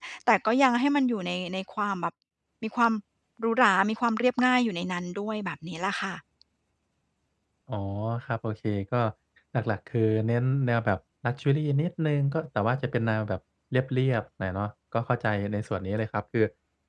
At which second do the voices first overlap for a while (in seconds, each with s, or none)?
none